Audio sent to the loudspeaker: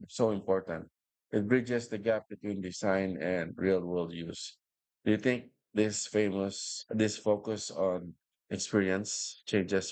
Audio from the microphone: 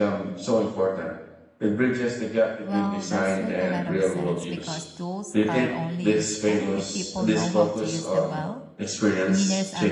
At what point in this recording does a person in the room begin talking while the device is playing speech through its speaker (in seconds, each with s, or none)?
2.6 s